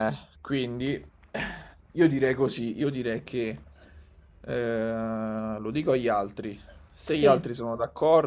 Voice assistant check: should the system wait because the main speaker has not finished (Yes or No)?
Yes